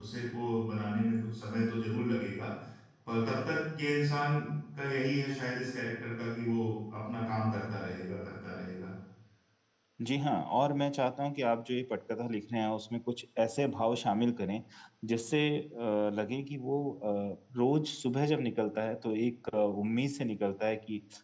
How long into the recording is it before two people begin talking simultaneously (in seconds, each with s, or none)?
none